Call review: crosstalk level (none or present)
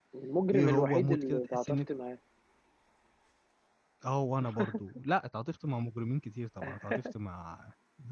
present